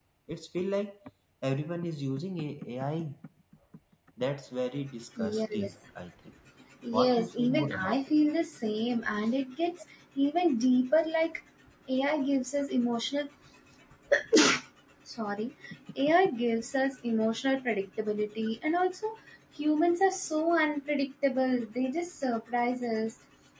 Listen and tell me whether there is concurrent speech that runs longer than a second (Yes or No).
Yes